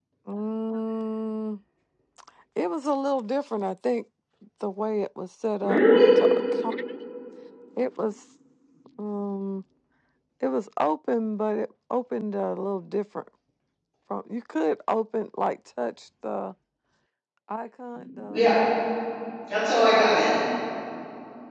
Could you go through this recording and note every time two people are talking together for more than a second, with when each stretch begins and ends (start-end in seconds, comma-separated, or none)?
none